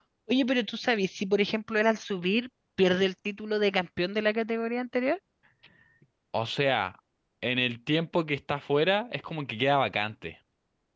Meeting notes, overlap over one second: none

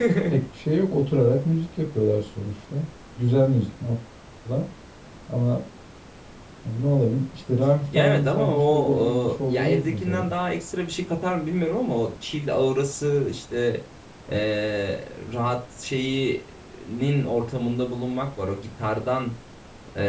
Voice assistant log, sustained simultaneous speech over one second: present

